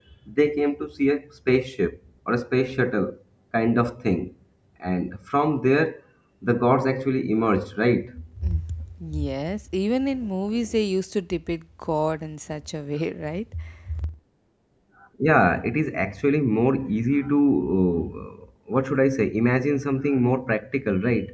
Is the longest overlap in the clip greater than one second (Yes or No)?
No